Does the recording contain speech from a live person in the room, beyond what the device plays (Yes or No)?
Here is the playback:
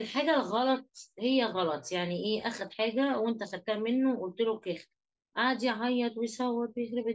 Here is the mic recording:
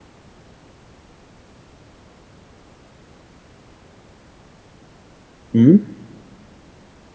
Yes